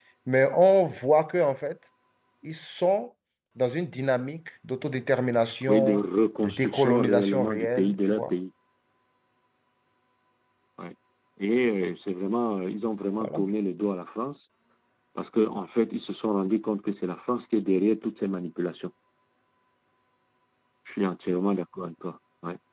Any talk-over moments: Yes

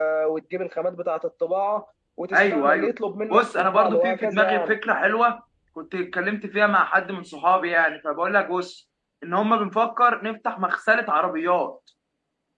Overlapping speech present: Yes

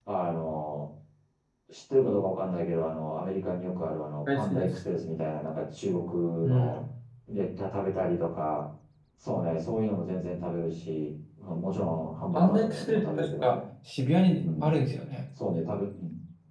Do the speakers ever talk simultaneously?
Yes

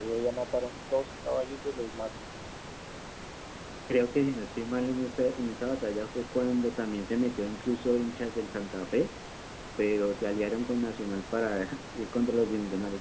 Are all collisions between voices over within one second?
Yes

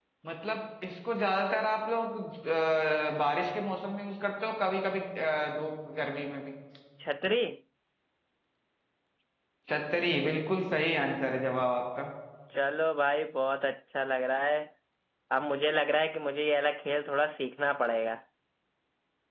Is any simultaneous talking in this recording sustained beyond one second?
No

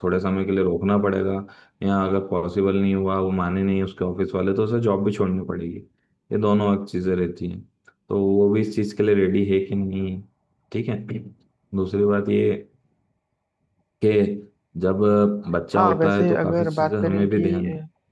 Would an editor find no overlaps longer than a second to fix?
No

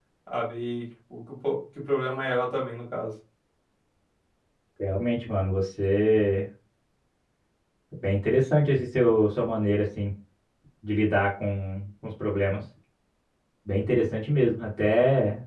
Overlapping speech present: No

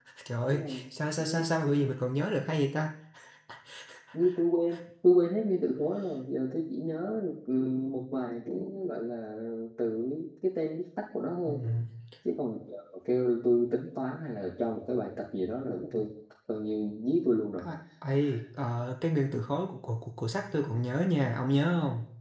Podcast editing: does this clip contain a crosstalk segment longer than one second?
No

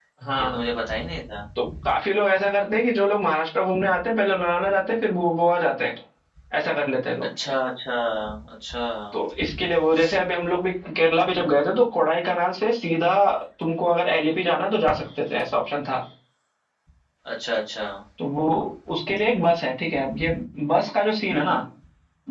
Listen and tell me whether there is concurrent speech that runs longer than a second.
No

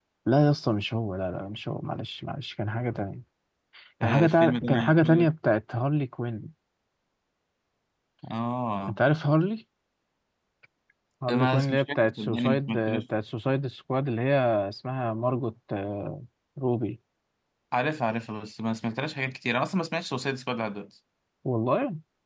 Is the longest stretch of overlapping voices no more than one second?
No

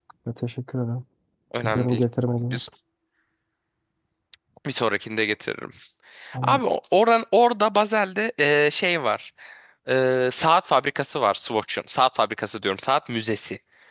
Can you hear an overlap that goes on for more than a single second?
No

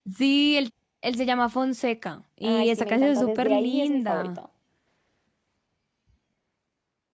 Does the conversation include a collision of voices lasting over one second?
Yes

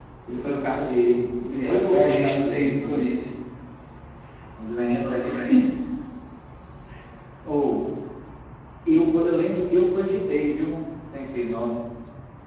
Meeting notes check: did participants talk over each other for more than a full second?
Yes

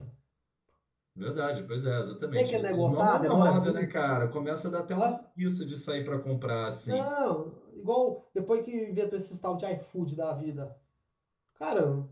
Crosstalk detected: Yes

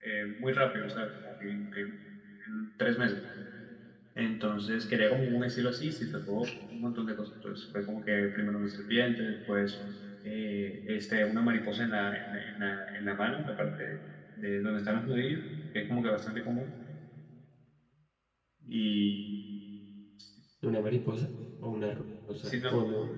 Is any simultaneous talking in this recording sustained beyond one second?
No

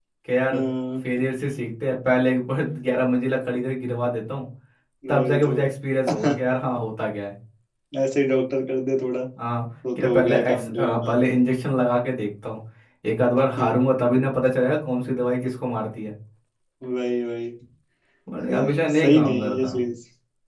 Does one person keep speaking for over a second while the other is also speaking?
Yes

